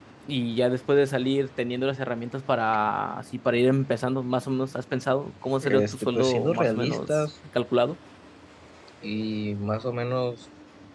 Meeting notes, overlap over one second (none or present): present